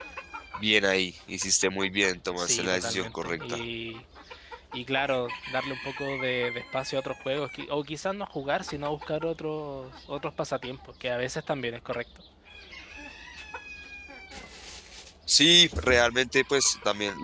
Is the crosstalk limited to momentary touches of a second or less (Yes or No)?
No